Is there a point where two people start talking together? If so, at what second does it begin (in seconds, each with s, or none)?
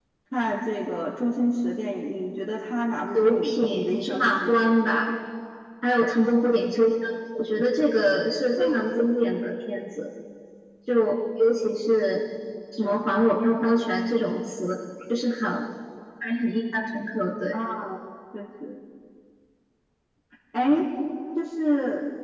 3.1 s